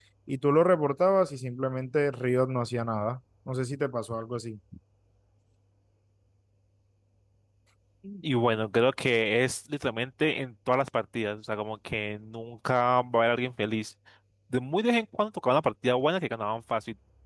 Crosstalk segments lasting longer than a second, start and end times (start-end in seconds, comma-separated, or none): none